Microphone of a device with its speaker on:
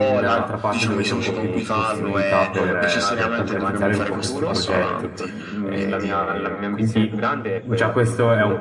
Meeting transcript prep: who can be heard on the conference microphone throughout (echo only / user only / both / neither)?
both